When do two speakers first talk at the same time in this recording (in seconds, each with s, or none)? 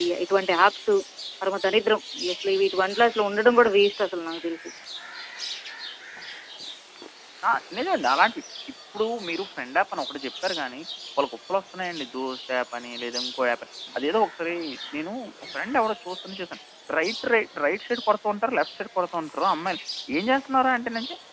none